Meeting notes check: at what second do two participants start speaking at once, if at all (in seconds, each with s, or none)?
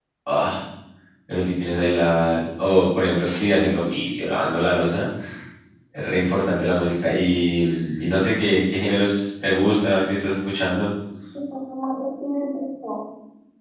none